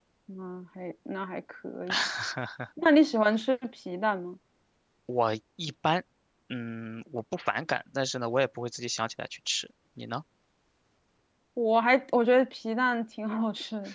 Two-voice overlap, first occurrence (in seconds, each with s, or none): none